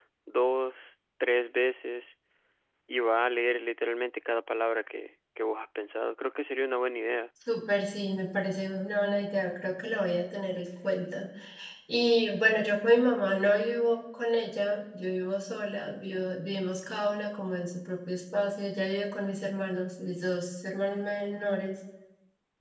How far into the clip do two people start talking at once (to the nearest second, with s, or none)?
none